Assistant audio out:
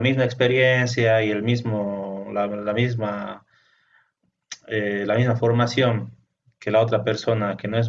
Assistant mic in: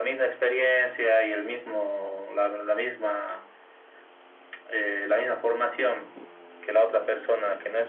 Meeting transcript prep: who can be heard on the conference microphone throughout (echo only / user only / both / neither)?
echo only